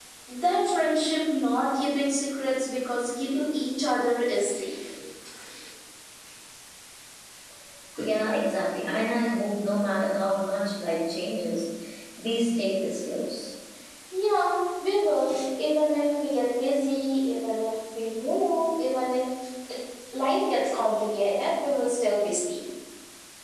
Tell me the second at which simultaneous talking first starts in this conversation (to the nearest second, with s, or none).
none